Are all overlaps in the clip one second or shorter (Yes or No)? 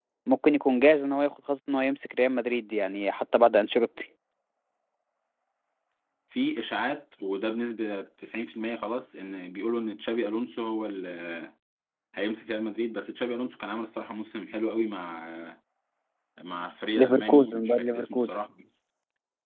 No